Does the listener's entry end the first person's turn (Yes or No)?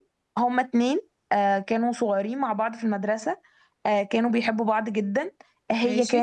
No